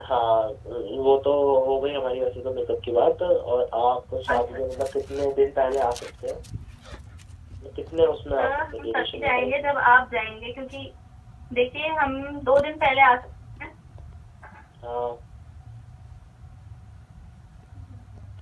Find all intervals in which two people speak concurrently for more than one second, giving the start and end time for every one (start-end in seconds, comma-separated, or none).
8.3-9.7